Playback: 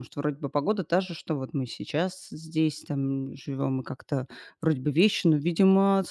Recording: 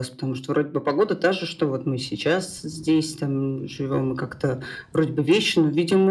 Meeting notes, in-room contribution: none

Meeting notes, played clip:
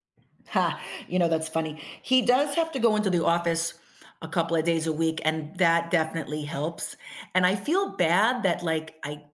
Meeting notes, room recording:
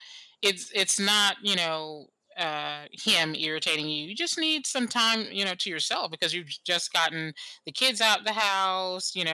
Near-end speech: present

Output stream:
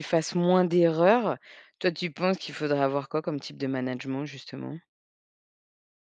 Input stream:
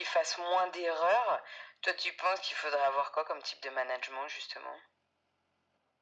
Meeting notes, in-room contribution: none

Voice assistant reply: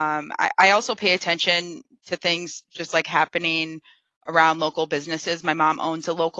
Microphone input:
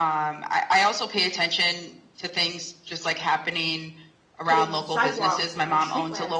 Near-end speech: present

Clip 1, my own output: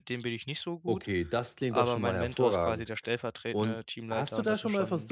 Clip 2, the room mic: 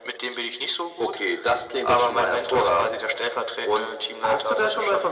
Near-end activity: none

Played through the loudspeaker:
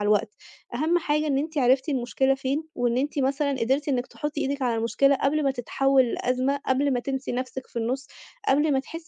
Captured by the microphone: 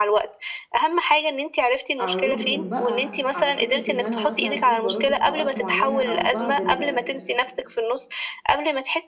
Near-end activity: present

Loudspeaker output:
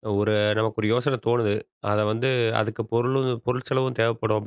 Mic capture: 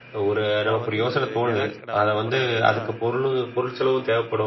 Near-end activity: present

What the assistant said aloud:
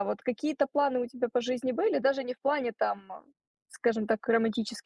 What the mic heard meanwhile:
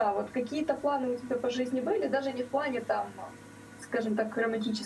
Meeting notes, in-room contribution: none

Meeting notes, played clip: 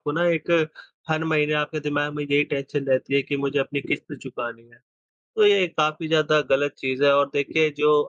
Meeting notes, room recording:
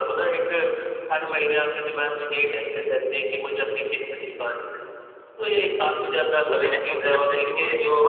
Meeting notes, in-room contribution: present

